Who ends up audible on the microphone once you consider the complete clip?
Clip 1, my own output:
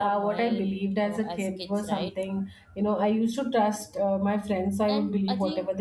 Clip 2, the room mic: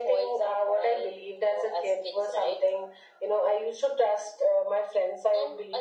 echo only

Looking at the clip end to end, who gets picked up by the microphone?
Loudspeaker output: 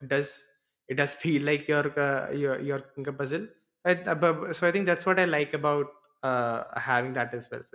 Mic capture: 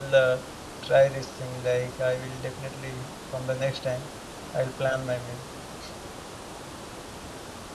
user only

